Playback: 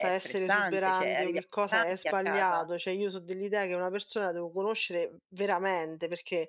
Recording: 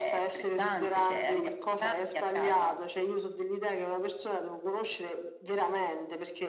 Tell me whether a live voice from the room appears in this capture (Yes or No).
No